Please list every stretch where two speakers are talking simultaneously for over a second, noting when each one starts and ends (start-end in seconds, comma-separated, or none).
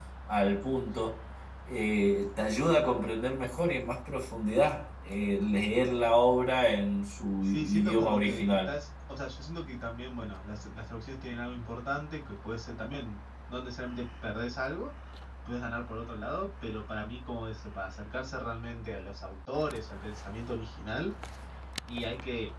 7.5-8.8